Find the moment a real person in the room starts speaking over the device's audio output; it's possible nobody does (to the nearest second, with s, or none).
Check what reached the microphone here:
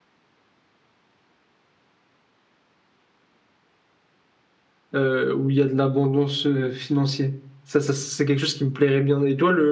5 s